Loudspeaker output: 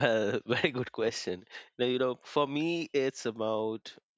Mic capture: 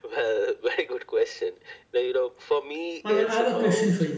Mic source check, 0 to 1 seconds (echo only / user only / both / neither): echo only